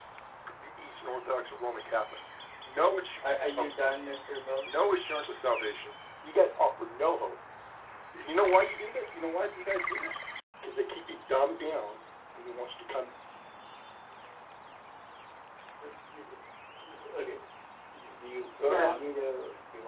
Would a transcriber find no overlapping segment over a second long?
Yes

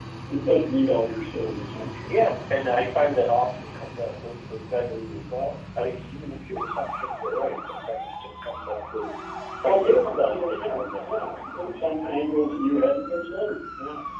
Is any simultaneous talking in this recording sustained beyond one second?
Yes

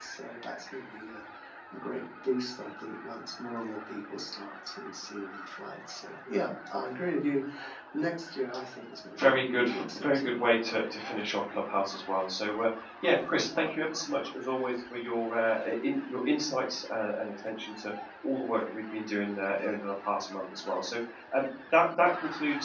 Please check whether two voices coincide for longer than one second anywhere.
Yes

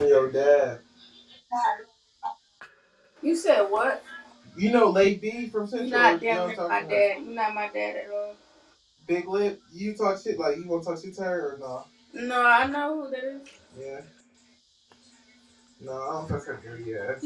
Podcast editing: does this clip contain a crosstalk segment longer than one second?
Yes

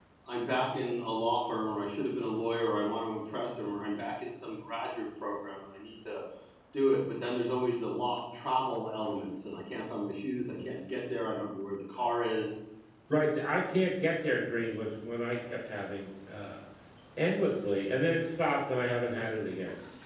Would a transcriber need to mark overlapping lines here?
No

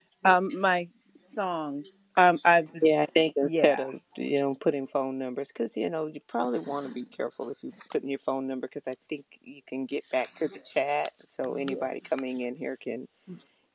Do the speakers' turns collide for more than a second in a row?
No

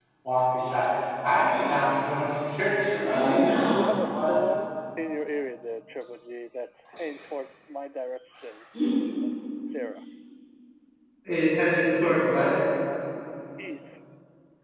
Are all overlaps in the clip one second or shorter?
No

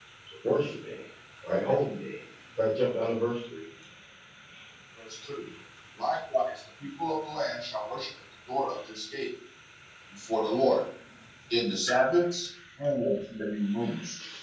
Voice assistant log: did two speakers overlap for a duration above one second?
No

